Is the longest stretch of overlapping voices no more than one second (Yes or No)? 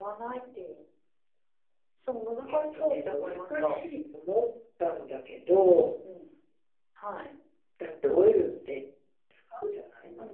No